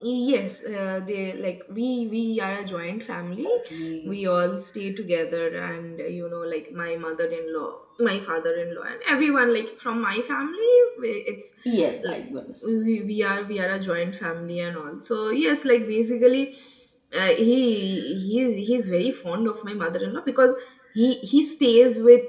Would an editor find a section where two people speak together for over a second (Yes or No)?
No